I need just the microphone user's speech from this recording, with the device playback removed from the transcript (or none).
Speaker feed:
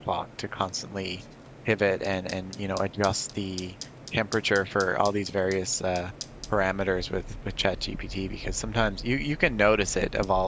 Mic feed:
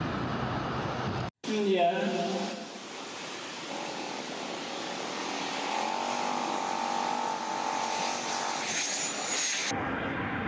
yeah.